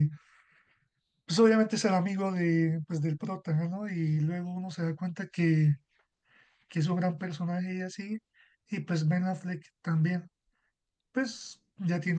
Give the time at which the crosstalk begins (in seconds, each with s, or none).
none